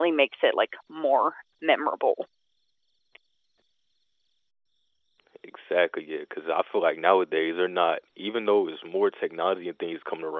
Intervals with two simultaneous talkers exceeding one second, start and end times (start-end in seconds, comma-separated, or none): none